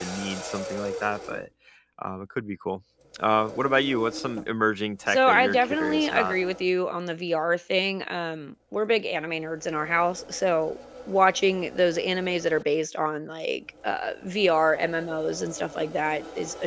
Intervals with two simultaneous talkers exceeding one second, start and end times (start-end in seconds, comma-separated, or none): 5.1-6.3